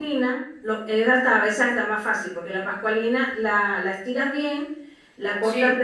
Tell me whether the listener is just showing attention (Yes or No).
Yes